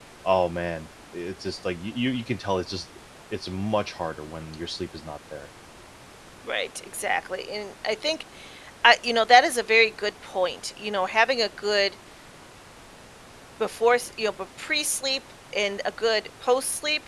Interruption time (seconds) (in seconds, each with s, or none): none